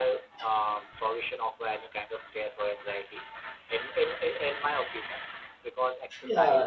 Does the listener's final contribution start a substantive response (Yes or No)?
Yes